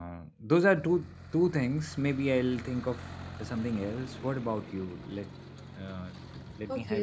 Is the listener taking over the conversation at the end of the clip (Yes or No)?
Yes